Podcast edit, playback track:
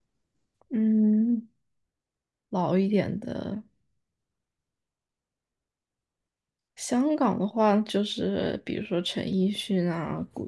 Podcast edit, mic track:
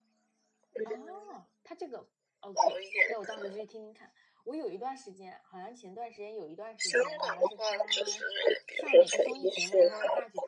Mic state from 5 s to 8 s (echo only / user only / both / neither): both